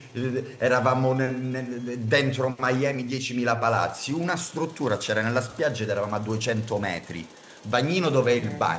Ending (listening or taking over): listening